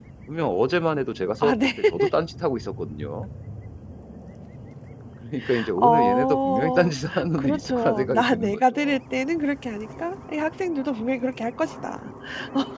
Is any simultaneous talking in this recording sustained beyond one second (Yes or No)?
Yes